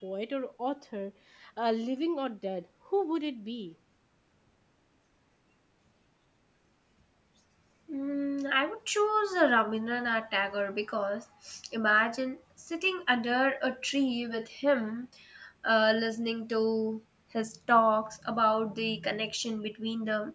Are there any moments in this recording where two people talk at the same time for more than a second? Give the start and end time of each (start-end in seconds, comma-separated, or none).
none